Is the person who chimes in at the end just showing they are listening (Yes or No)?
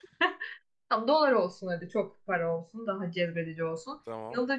Yes